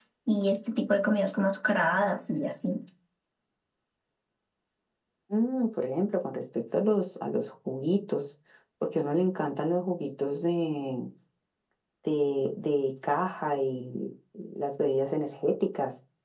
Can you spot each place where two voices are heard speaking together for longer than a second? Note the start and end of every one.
none

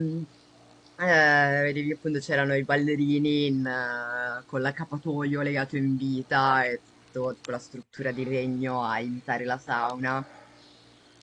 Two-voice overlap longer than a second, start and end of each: none

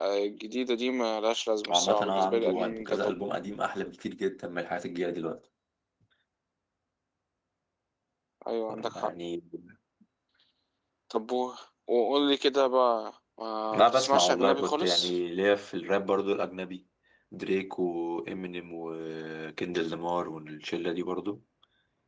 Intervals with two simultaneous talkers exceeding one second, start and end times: 1.7-3.2, 13.7-15.2

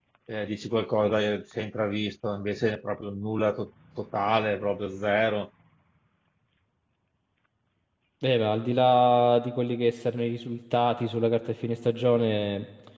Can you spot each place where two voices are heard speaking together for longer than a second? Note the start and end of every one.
none

